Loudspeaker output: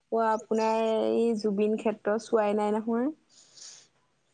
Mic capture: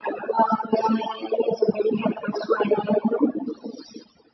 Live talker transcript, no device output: none

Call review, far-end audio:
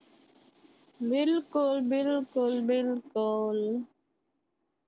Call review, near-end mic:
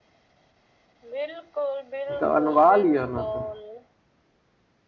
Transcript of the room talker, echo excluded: तऽ अनवा लिया ने तऽ।

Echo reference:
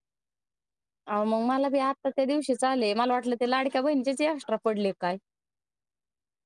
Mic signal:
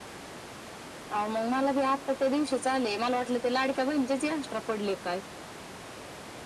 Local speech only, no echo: none

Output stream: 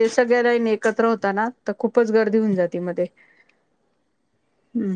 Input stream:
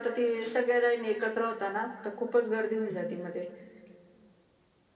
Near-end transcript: none

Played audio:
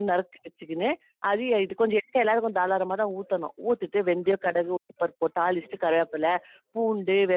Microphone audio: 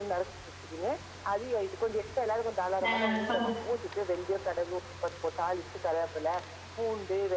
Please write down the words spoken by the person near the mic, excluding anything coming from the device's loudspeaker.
அ சந்தோஷம்.

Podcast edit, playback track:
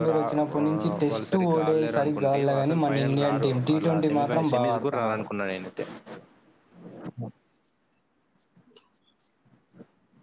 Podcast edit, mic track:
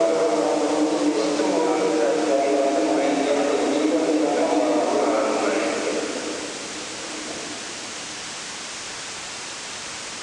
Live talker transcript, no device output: none

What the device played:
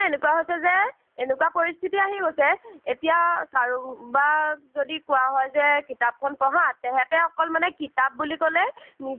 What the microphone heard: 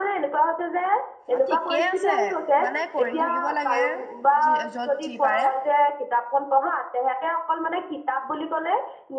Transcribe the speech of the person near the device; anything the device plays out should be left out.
অ', ঠিকেই আছে মানে কৰি থাকিব লাগে। যি য'ত যি পাৰে।

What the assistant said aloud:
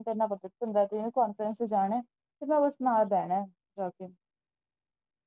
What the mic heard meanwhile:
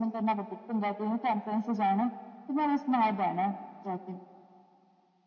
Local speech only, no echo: none

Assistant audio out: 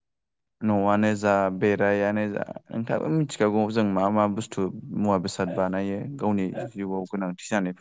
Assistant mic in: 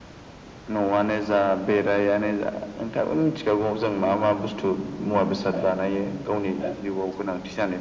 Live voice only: none

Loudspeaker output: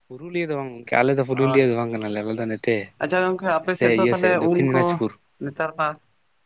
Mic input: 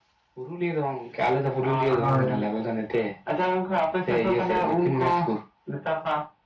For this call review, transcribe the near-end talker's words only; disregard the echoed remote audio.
ᱦᱳᱭ᱾

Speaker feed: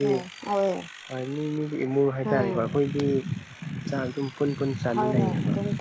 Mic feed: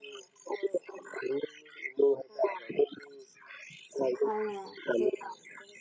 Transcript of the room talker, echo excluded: ꯍꯥꯏꯅꯦ

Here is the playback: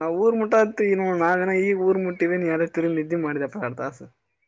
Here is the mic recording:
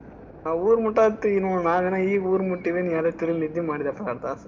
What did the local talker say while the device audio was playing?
none

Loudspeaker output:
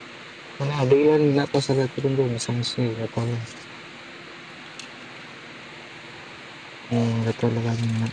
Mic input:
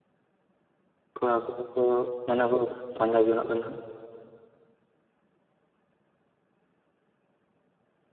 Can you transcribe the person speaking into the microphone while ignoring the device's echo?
ᱠᱟ ᱠᱚᱨᱮ ᱠᱚ, ᱢᱟᱱᱮ ᱠᱚ ᱯᱟᱸᱡᱟ ᱡᱚᱱᱚᱜ ᱠᱟᱱᱟ!

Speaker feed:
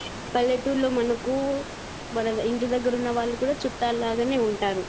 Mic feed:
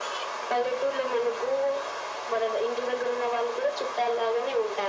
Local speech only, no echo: none

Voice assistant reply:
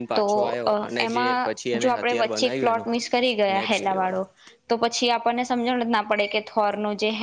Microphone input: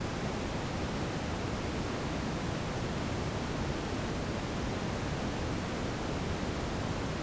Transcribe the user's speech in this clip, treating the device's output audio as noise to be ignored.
none

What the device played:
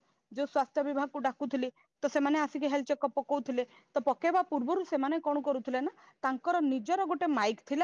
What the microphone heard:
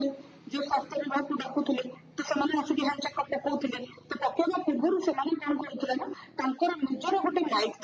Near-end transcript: none

